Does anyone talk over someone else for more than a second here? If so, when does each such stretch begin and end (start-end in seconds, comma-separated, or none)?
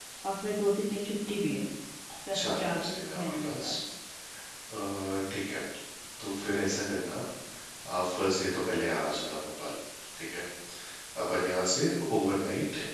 2.3-3.7